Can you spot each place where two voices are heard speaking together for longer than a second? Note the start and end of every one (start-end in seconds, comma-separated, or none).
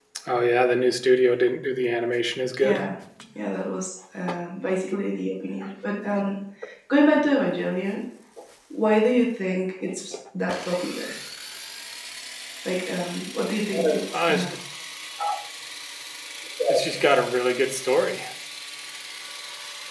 none